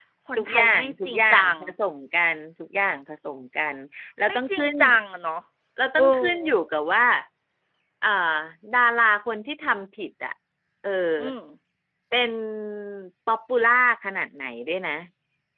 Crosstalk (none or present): present